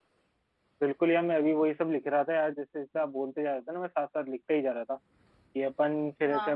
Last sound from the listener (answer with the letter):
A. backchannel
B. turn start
A